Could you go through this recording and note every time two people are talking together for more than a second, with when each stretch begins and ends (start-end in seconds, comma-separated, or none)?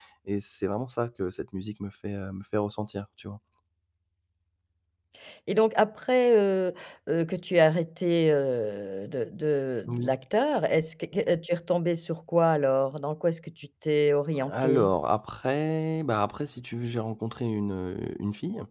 none